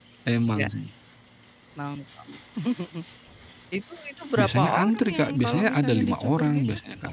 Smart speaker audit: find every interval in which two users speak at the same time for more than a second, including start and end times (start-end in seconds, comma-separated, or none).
4.4-6.6